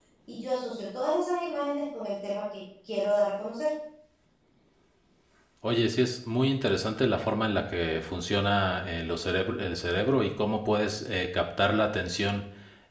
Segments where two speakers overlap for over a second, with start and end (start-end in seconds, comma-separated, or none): none